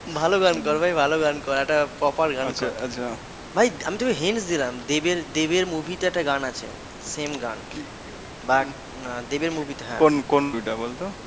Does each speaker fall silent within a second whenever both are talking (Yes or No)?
Yes